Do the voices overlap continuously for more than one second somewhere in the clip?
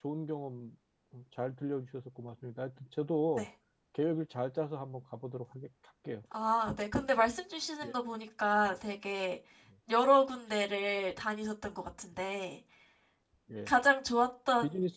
No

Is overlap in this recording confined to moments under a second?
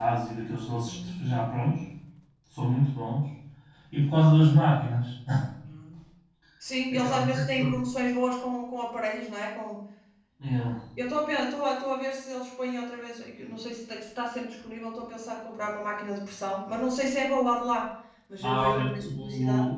No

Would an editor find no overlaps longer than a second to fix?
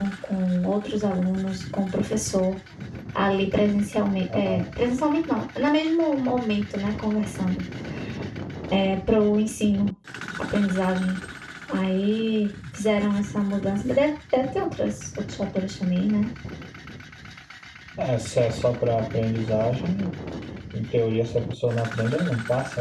Yes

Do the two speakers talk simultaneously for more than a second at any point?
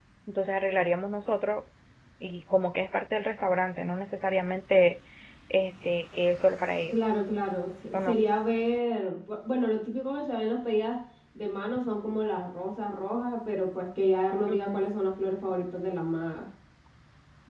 No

